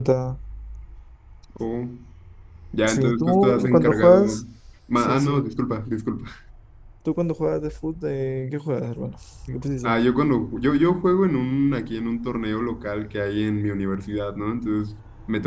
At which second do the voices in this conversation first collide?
2.9 s

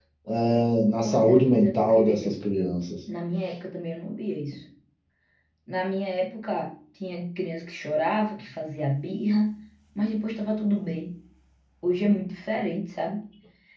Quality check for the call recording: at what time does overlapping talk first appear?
1.0 s

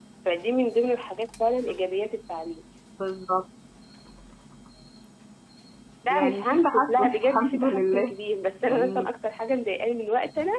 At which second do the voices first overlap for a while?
6.1 s

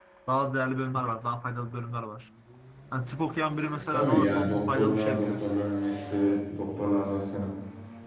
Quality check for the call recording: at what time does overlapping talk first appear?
3.9 s

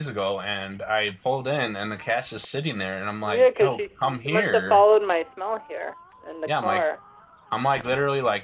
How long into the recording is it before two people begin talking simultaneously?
3.2 s

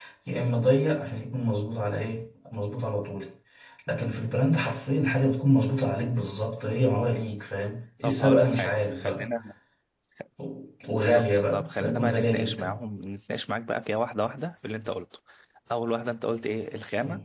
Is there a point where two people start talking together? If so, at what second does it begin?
8.0 s

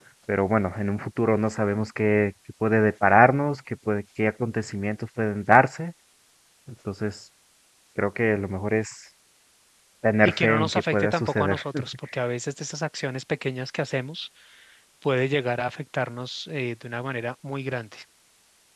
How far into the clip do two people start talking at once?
10.2 s

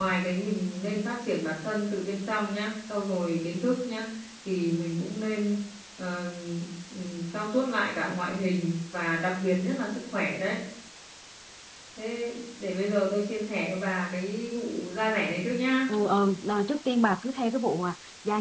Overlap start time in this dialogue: none

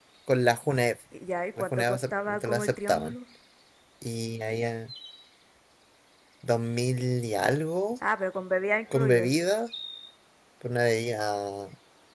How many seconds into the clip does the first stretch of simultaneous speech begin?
1.6 s

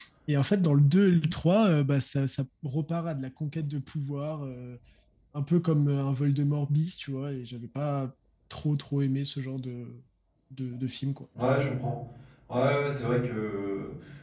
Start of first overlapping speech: none

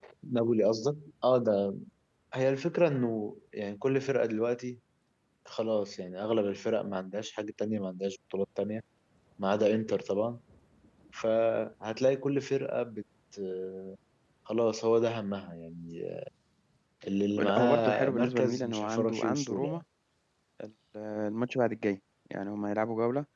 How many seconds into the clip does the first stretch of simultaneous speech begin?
17.4 s

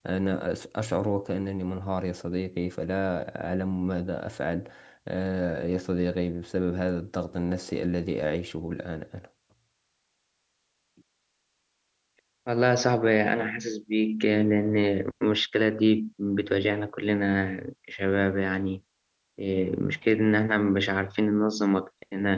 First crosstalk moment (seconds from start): none

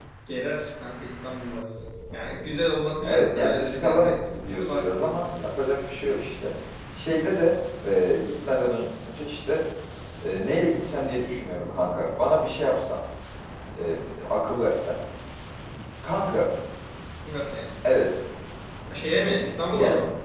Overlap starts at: 3.0 s

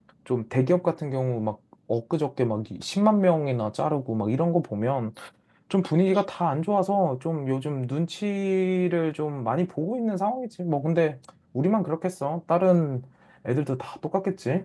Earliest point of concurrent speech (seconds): none

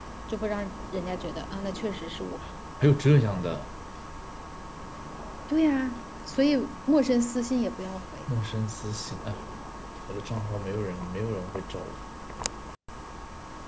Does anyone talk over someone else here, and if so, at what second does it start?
none

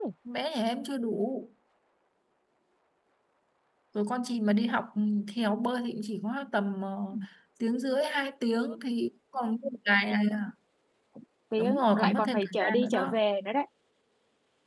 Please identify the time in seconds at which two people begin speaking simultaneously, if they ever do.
11.6 s

